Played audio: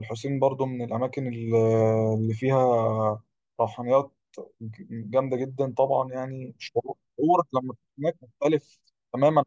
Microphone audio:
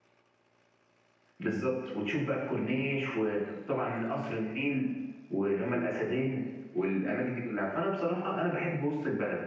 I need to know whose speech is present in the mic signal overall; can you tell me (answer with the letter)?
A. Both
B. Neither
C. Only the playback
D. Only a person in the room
D